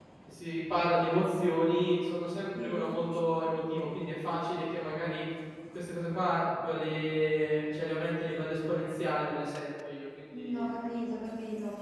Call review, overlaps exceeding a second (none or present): none